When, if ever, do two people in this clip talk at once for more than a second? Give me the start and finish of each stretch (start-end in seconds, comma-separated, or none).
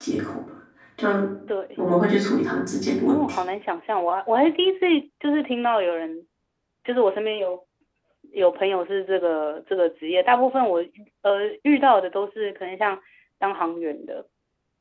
none